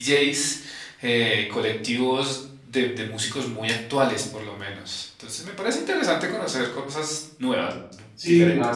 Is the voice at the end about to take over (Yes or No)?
Yes